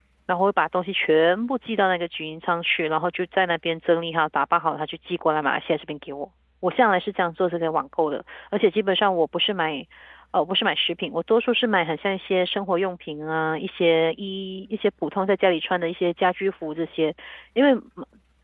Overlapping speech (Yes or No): No